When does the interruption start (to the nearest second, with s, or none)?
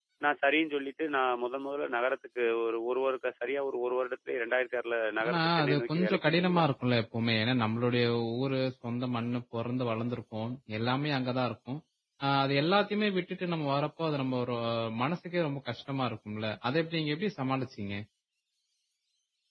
5 s